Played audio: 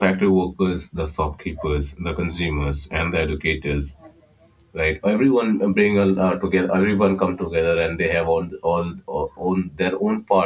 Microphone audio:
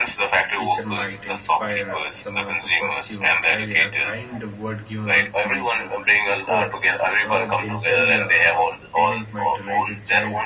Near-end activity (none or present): present